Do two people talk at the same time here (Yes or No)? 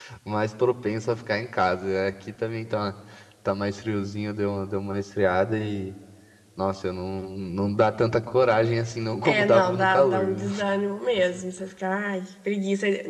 Yes